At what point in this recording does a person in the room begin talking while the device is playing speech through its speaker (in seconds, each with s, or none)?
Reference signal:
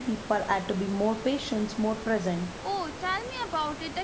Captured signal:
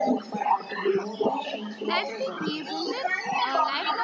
1.8 s